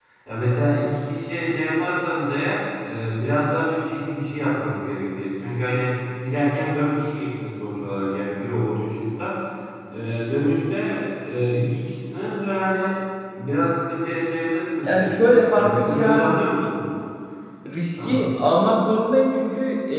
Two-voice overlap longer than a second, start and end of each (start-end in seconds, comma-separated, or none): 14.8-16.7